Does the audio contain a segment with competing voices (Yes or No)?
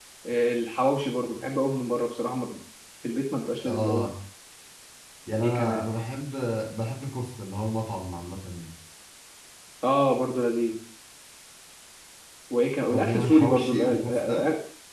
Yes